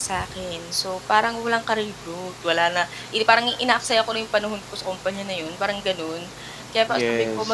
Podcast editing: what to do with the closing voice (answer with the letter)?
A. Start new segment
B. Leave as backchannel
B